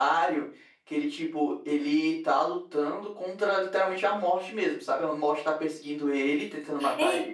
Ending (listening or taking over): taking over